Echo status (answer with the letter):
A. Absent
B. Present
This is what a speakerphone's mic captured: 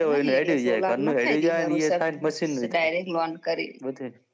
B